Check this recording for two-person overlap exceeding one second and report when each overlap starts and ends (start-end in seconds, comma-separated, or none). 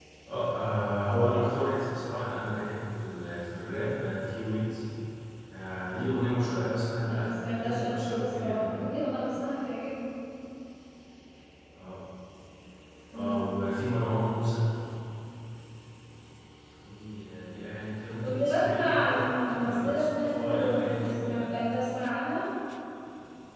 7.0-8.8, 18.2-21.6